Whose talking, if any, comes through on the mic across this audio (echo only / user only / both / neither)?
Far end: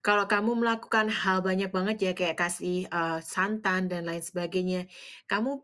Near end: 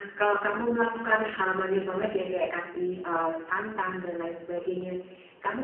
echo only